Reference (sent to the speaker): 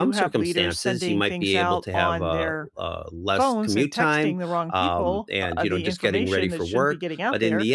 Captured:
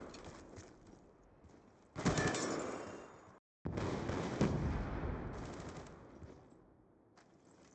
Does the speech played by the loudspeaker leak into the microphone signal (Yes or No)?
No